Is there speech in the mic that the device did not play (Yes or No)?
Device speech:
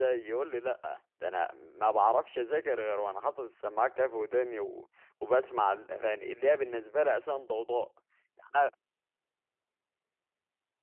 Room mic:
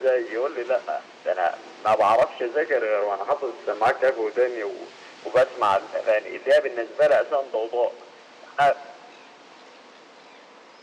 No